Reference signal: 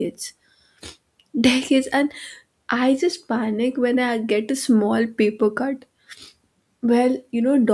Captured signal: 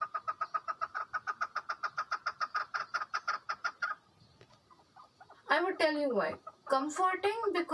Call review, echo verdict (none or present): none